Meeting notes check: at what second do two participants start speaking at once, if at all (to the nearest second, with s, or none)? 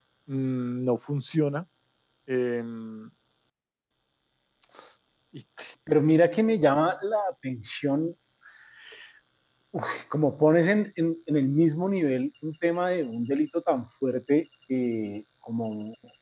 none